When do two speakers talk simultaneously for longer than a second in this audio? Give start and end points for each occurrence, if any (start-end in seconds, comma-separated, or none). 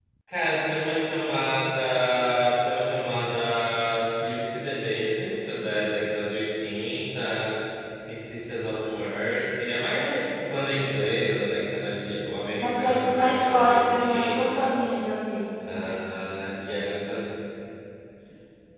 12.6-14.8